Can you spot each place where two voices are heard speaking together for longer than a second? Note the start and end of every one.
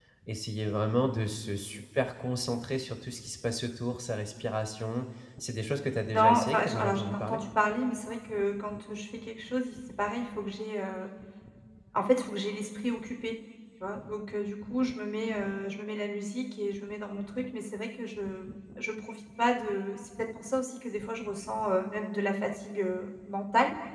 6.1-7.4

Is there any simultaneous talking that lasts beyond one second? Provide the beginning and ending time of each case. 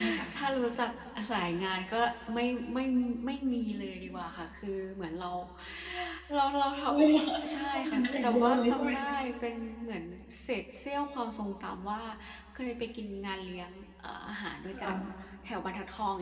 7.3-8.9

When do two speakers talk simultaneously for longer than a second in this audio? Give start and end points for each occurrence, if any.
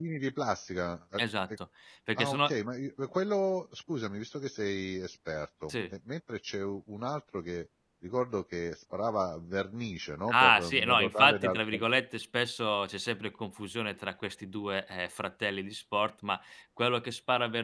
10.3-11.8

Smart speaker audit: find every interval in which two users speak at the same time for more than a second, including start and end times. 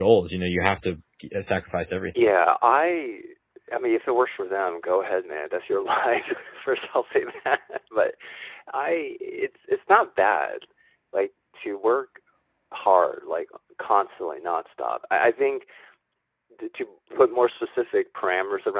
none

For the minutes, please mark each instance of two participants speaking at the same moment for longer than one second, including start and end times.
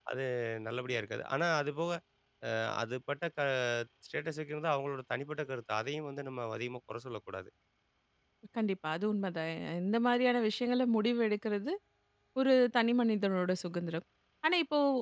none

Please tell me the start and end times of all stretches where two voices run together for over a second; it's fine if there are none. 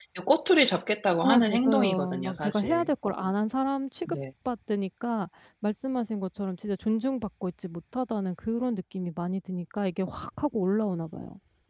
1.2-2.9

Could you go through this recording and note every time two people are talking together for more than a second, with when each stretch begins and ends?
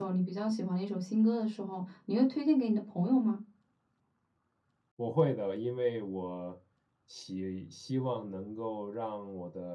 none

